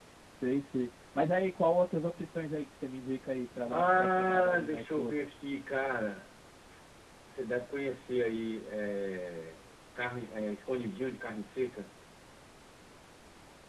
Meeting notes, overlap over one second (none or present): present